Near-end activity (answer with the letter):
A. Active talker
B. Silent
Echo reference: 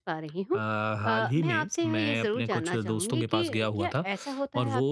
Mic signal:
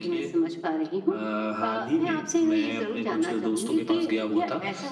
B